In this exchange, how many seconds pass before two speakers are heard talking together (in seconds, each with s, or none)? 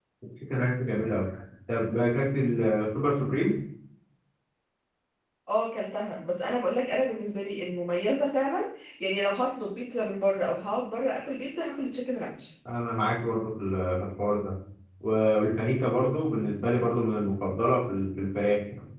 none